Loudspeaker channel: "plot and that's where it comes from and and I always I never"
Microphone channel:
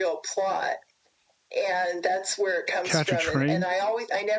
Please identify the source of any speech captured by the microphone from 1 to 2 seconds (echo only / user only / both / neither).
echo only